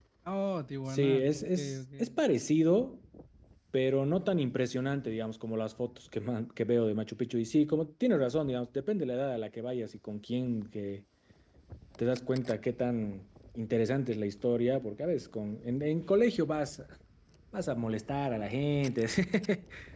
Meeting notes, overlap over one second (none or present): present